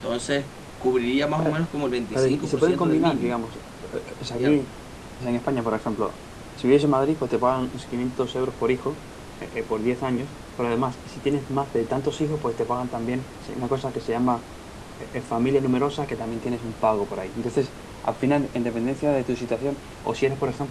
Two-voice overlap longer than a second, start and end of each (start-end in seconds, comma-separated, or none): 2.1-3.4